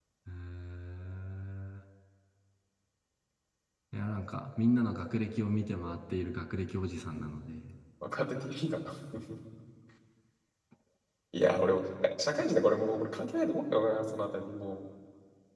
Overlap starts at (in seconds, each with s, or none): none